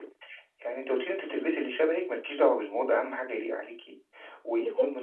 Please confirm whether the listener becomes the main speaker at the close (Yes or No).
No